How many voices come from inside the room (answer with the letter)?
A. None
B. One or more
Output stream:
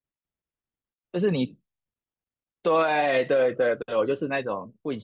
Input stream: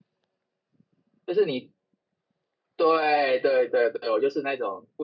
A